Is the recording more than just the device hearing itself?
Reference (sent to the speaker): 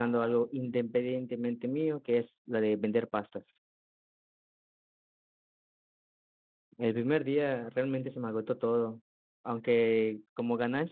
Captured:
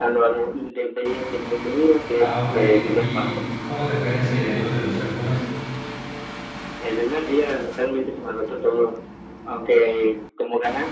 Yes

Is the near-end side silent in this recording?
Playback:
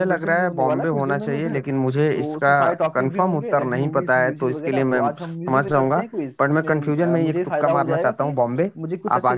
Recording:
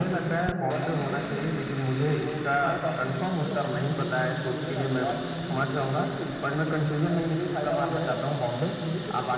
Yes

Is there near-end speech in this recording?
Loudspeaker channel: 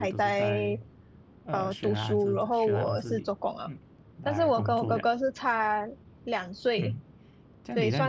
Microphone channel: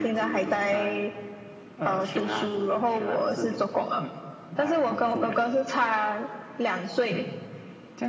No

